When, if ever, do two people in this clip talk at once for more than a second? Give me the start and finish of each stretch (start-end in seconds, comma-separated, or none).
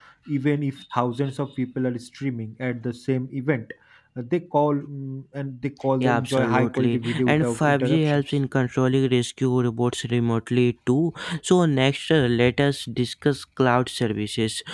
6.0-8.2